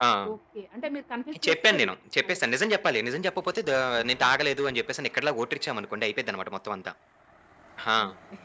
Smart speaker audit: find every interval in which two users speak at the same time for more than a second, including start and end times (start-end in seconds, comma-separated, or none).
none